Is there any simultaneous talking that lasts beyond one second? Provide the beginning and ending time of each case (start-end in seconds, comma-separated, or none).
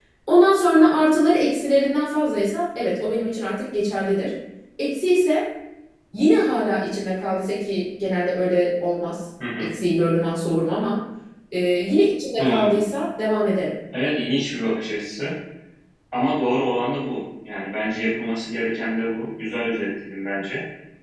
none